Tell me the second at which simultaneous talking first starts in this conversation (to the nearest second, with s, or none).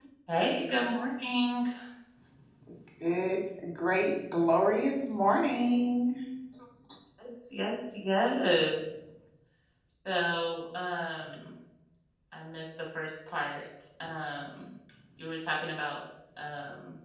none